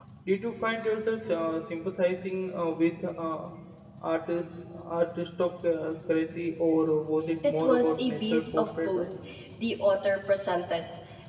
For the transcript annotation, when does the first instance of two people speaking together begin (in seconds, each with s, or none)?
7.4 s